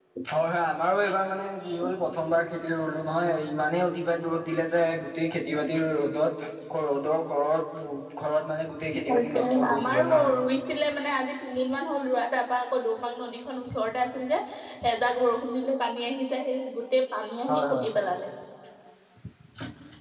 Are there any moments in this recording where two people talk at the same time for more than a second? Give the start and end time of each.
9.1-10.3

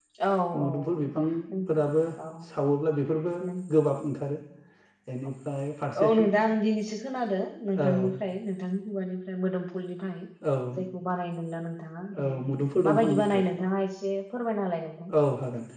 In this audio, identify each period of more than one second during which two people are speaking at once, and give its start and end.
12.2-13.4

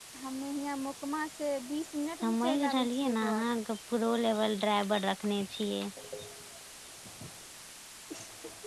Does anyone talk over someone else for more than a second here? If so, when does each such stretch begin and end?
2.2-3.6

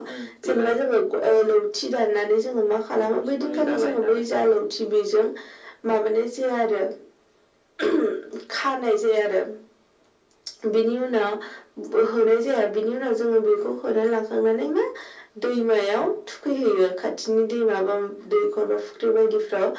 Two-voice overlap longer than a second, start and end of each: 3.0-4.3

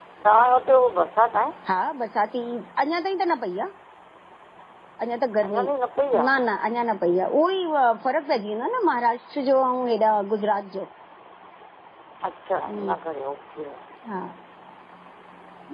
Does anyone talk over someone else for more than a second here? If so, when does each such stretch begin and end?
none

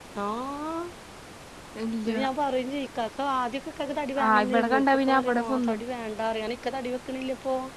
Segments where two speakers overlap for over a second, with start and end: 4.2-5.8

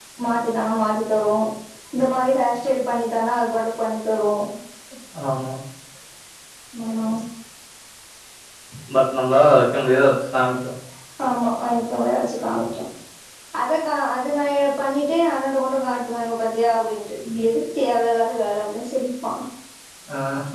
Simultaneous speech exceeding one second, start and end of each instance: none

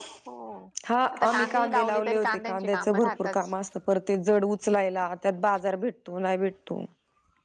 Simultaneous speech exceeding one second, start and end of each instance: 1.1-3.1

